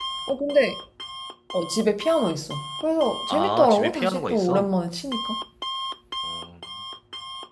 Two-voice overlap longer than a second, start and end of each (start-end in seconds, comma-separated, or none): 3.3-4.7